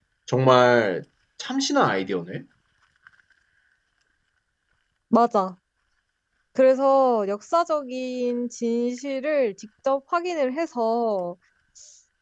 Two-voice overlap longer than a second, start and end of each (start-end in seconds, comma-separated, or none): none